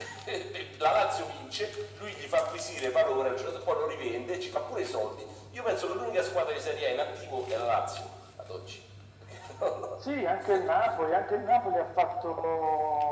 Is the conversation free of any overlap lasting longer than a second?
Yes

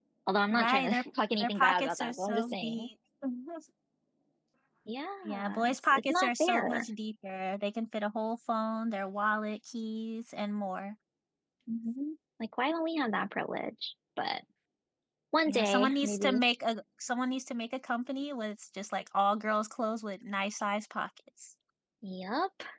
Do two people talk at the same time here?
Yes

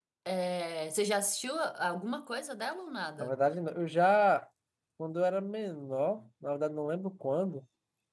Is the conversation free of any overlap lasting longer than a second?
Yes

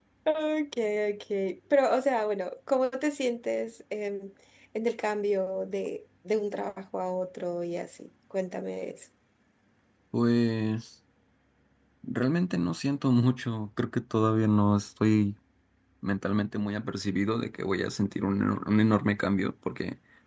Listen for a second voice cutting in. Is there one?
No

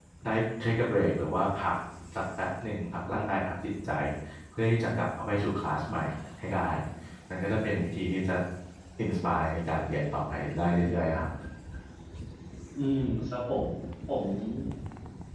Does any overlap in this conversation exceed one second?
No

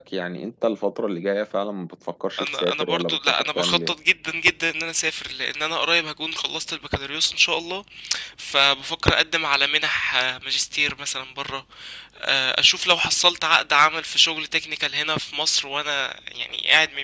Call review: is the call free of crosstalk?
No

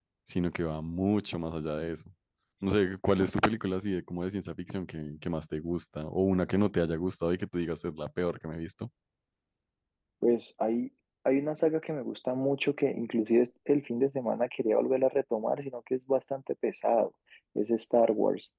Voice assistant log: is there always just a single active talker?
Yes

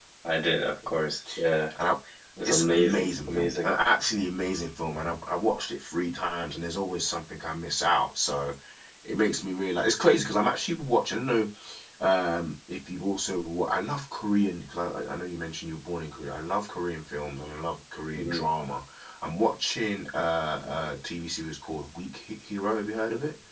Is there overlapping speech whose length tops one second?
Yes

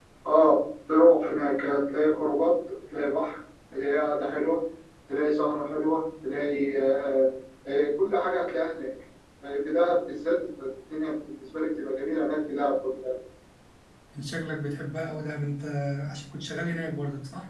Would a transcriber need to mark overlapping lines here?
No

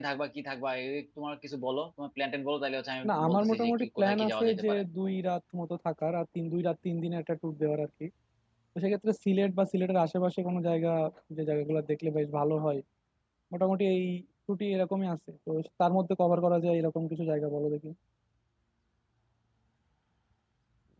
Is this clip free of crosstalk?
No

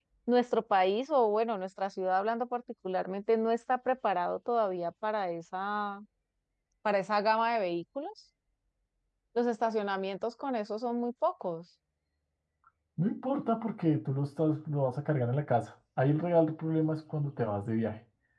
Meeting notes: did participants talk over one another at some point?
No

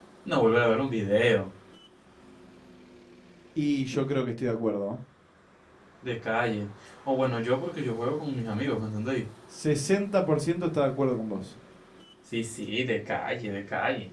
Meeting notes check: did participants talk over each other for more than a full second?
No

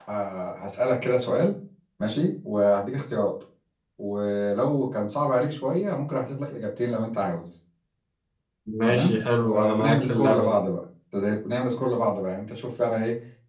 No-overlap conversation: No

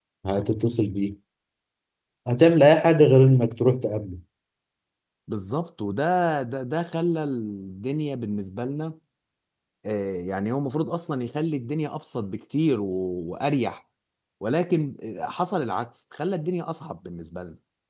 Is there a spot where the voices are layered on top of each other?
No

